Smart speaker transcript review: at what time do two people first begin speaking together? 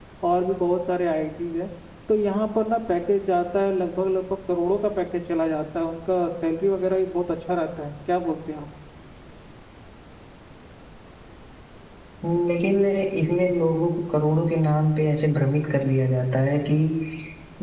none

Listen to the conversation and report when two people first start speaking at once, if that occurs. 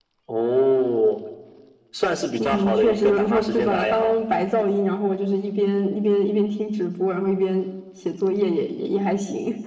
2.4 s

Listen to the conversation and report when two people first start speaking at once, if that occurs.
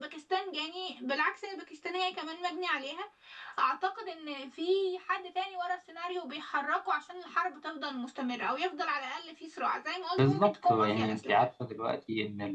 10.2 s

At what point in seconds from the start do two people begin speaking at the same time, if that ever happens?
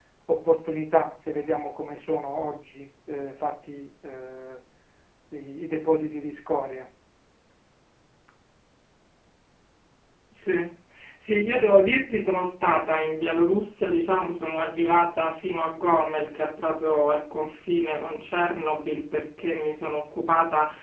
none

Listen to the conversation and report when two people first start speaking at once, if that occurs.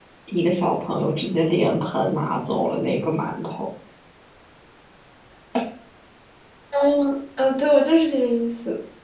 none

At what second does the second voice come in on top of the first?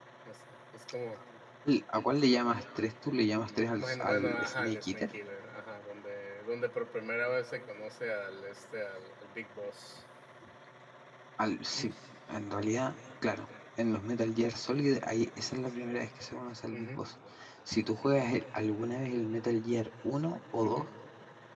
3.8 s

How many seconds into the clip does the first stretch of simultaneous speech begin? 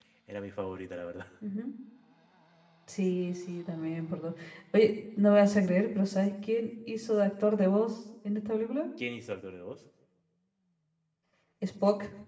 none

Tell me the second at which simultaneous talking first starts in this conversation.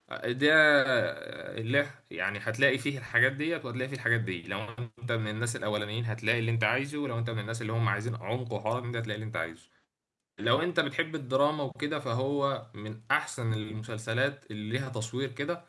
none

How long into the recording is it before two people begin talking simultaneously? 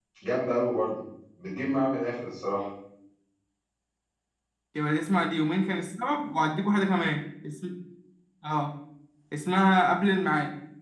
none

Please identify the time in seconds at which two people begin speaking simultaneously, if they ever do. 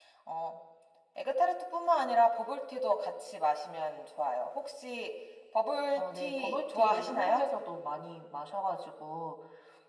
6.0 s

